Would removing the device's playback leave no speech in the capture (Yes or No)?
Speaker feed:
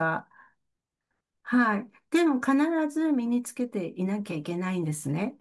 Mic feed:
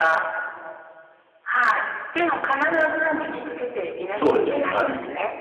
No